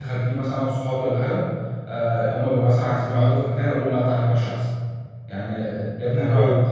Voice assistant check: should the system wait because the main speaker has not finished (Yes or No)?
Yes